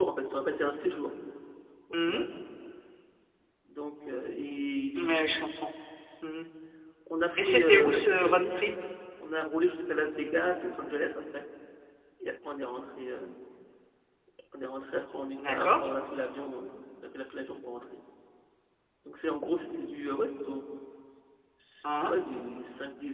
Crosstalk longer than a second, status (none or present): present